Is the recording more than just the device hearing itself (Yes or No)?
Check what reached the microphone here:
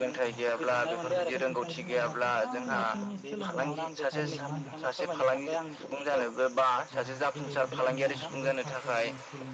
Yes